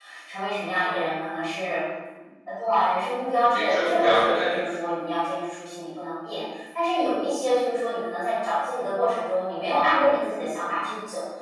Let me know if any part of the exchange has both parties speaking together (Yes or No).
Yes